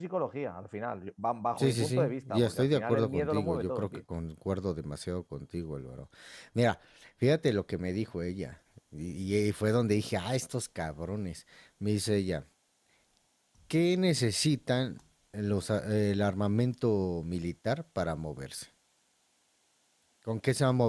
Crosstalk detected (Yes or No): Yes